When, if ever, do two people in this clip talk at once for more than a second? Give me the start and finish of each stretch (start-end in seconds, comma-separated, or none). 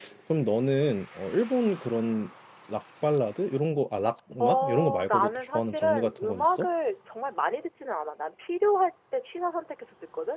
4.4-6.7